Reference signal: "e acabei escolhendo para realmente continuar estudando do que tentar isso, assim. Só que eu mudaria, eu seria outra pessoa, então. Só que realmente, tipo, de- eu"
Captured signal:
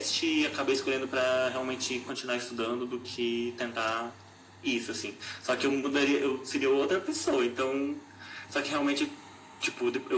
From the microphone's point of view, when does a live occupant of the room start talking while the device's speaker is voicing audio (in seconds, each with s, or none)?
none